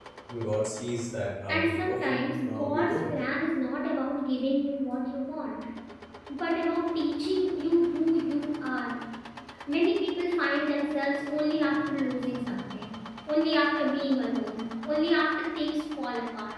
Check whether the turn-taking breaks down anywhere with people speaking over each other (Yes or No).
Yes